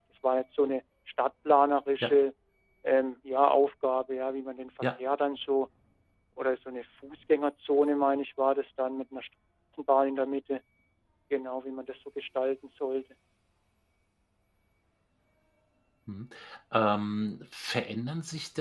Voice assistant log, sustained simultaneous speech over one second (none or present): none